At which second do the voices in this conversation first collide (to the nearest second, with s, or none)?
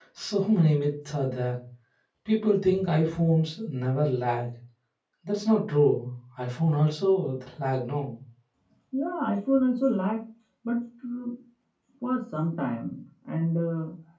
none